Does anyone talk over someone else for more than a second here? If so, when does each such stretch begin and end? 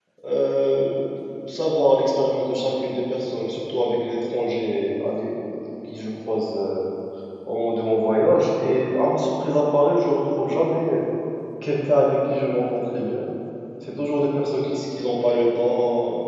none

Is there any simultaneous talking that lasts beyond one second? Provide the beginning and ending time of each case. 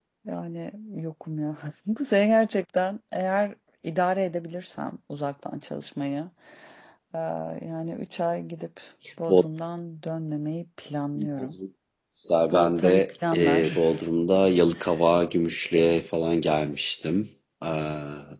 12.5-13.8

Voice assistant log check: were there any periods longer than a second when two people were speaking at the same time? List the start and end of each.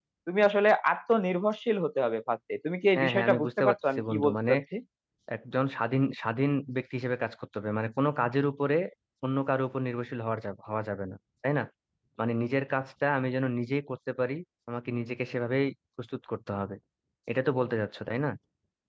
2.9-4.5

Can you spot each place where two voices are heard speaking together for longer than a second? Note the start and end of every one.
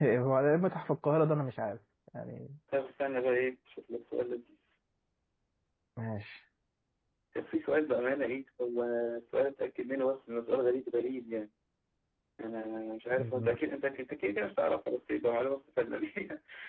none

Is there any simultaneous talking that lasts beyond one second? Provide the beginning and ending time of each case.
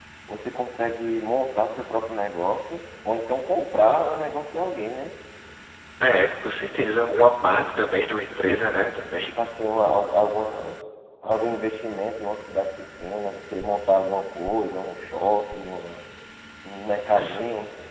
none

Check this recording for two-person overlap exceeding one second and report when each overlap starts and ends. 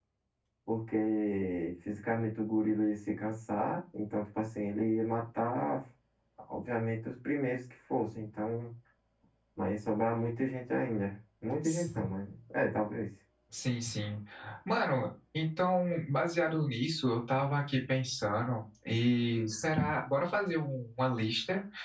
none

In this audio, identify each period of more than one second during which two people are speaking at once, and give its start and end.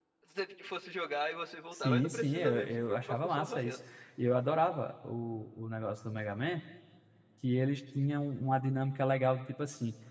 1.7-3.8

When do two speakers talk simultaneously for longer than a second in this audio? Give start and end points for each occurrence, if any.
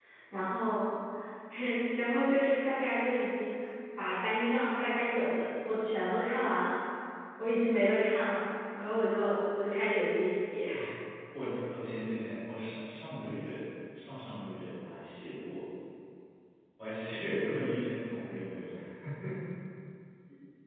none

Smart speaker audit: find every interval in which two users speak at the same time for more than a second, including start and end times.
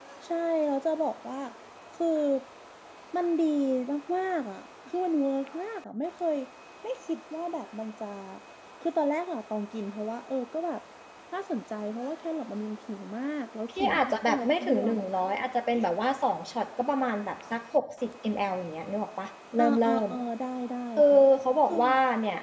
13.8-15.0

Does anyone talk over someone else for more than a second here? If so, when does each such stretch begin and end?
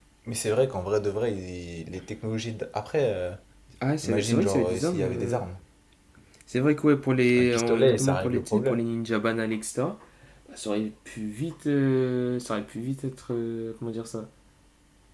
4.0-5.4, 7.4-8.9

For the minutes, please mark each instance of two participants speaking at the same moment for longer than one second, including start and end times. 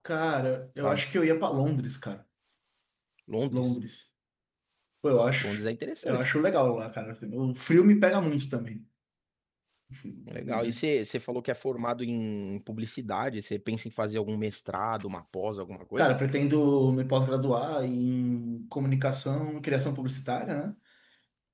none

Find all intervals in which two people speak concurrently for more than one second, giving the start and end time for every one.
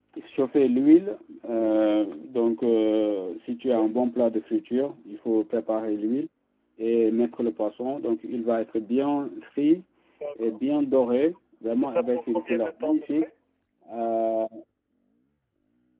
11.8-13.3

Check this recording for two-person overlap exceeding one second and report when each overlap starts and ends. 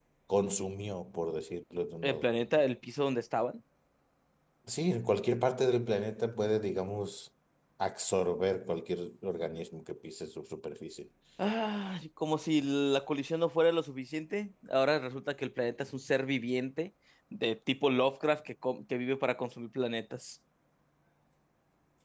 none

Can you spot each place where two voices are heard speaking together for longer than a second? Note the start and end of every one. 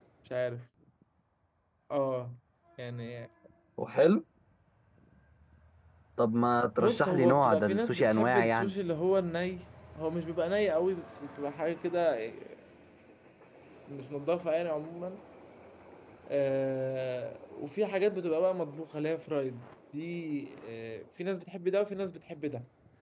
6.8-8.8

